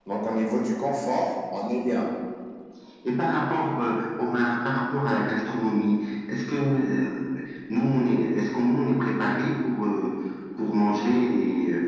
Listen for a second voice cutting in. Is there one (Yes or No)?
No